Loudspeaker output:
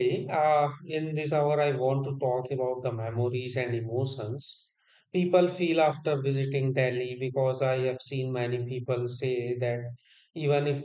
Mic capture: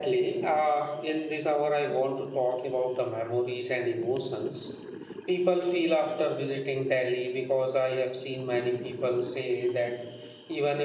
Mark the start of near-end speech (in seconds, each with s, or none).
none